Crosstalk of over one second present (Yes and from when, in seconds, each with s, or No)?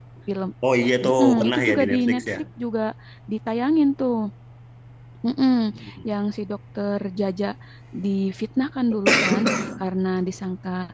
Yes, from 1.0 s